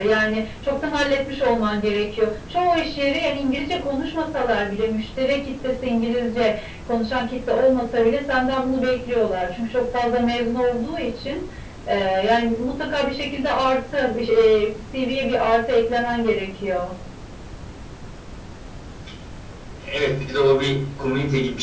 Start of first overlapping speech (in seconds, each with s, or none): none